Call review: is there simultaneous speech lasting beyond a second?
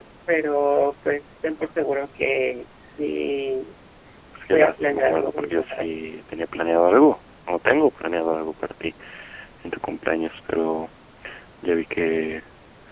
Yes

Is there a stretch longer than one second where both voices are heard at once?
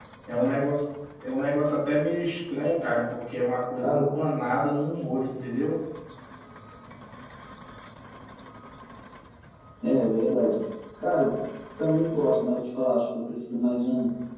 No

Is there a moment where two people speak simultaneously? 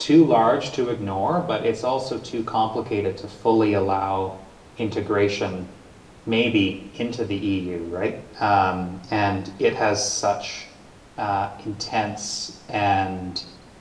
No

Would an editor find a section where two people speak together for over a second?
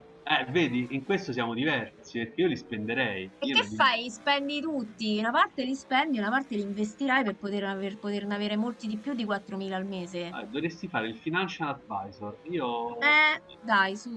No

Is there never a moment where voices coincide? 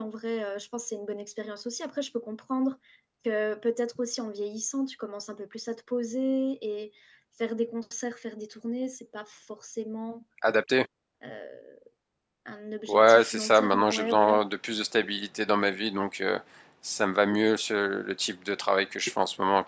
No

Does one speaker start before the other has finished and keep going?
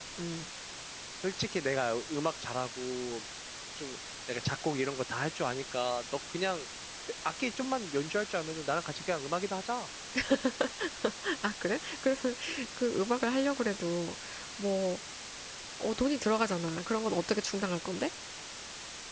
No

